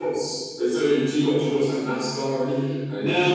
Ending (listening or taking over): taking over